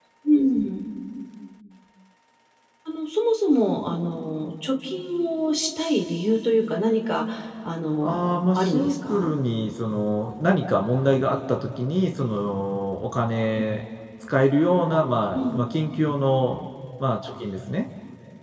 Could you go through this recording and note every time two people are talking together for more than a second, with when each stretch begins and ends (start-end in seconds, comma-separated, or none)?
8.0-9.3